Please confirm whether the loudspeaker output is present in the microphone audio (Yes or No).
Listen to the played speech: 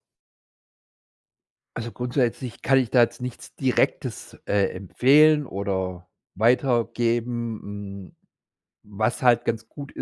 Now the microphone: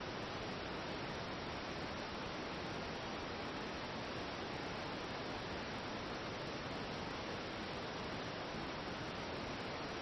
No